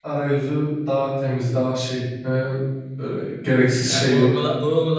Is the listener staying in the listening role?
No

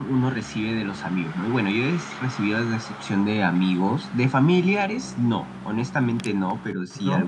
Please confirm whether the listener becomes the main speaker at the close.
No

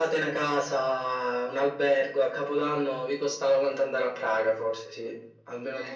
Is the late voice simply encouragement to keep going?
No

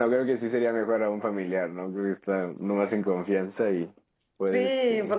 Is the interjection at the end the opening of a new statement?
Yes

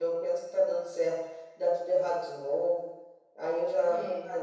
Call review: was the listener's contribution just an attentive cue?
Yes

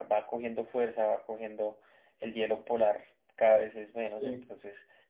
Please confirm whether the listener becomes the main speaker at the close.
No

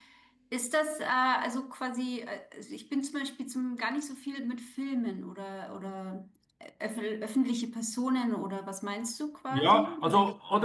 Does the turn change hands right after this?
Yes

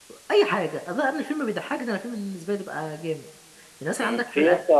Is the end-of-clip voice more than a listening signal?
Yes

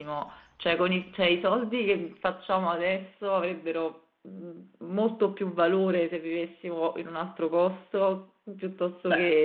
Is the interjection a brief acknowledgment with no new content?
No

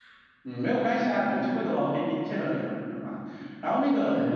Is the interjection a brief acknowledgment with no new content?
Yes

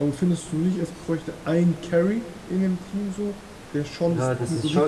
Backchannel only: No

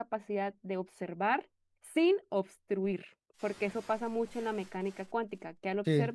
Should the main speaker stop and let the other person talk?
Yes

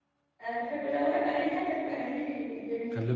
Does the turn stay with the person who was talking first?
No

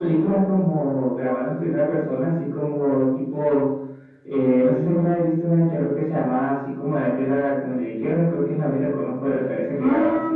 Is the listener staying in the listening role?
No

